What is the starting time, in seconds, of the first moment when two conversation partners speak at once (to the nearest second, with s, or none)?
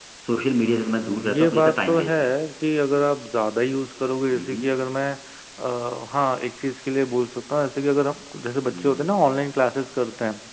1 s